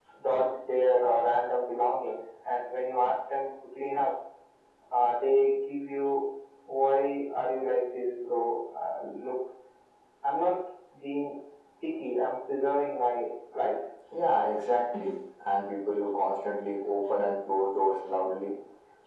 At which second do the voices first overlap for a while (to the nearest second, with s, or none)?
none